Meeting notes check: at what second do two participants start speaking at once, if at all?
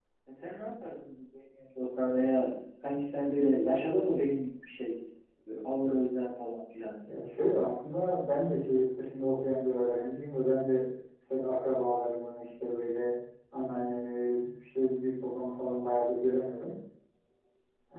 none

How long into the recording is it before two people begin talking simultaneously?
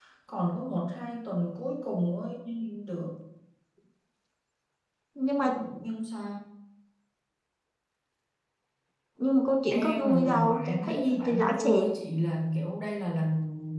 9.7 s

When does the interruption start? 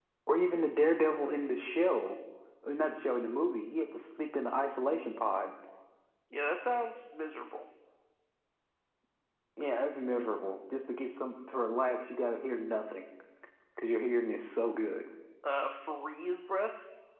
none

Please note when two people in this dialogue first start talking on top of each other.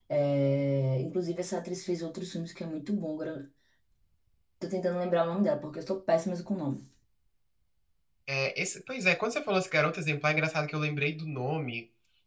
none

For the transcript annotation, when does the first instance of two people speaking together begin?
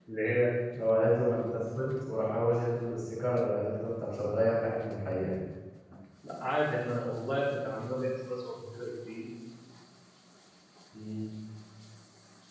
none

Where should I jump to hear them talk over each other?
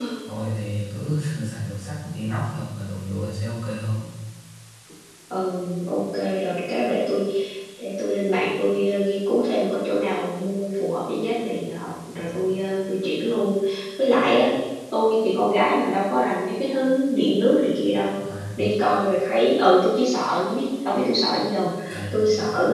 none

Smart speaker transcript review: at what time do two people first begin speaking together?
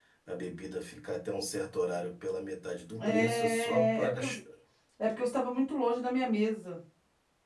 3.0 s

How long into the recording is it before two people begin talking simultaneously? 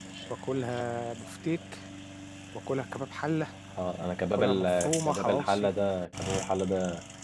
4.3 s

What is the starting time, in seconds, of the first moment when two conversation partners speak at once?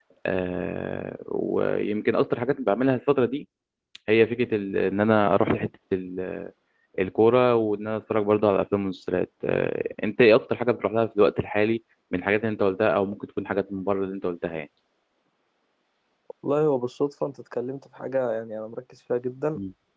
none

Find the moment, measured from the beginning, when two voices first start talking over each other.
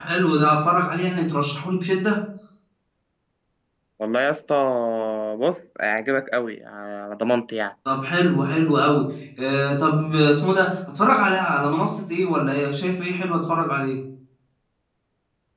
none

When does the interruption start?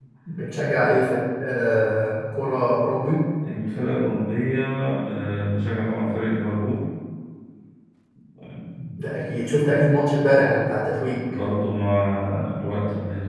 none

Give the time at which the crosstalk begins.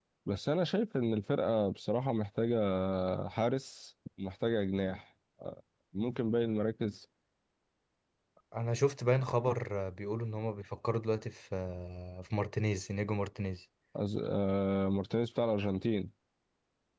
none

